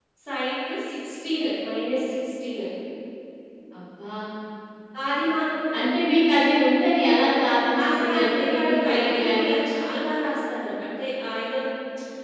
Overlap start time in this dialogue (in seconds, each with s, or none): 7.7 s